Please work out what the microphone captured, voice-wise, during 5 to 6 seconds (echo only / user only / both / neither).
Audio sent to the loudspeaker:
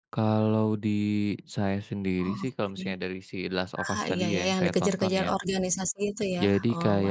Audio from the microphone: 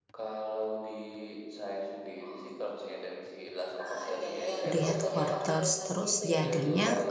both